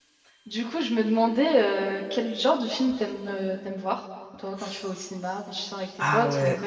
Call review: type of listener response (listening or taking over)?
taking over